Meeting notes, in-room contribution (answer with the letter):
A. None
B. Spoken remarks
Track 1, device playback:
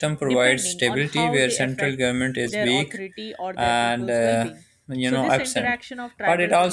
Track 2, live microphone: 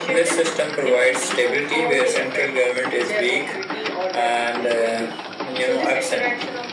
A